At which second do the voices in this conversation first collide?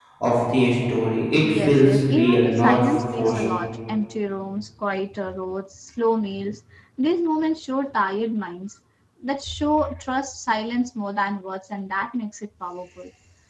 1 s

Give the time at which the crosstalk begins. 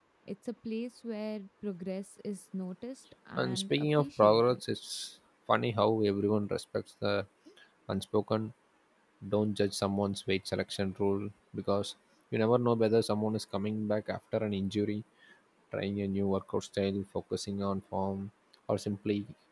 3 s

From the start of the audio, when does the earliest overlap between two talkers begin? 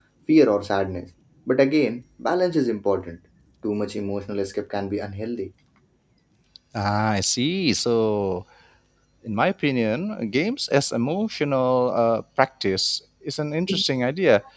none

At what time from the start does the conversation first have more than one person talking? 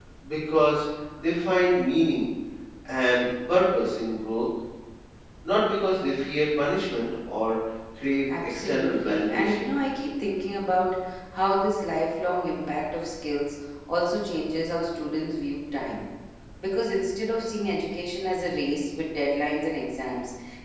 8 s

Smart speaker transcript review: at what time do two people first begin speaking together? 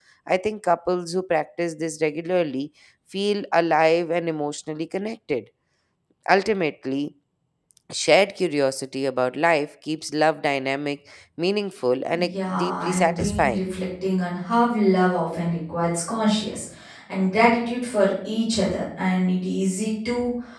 12 s

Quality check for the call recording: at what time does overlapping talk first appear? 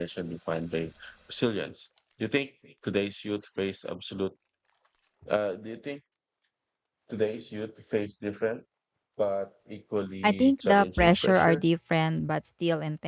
10 s

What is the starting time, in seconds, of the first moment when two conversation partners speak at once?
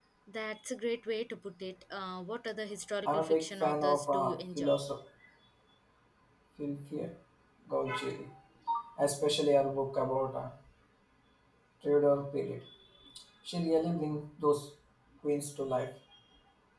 3 s

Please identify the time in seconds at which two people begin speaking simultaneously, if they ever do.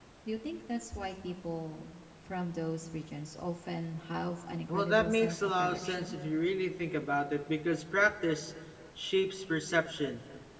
5 s

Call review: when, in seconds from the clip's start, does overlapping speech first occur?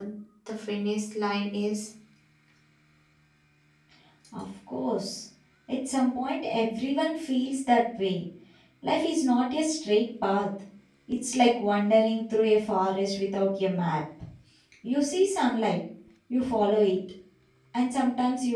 none

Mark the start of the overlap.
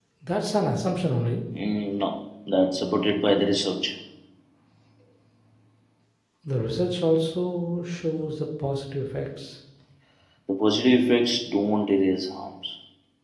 none

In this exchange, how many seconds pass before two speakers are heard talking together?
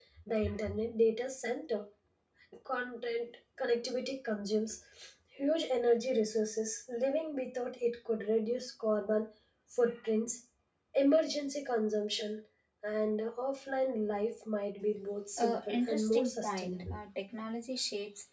15 s

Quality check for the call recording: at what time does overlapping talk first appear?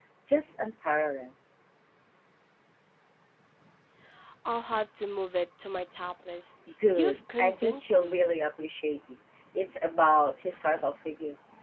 7 s

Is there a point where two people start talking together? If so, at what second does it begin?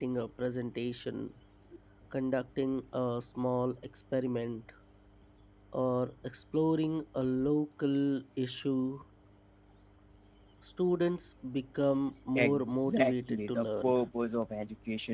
12 s

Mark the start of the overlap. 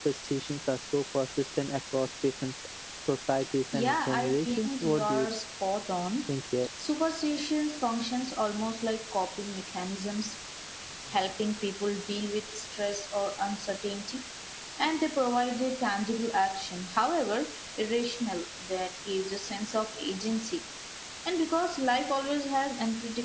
4 s

